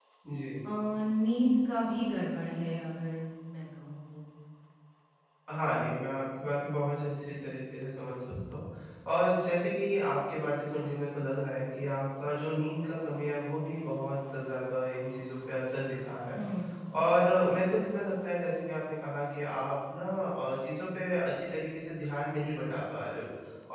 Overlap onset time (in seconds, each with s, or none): none